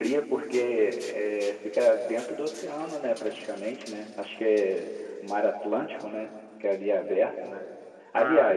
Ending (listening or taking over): listening